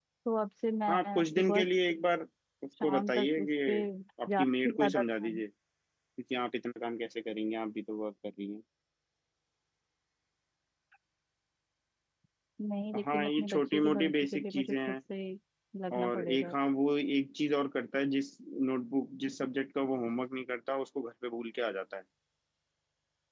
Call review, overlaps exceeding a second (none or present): present